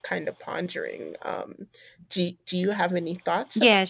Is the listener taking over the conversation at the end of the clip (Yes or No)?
Yes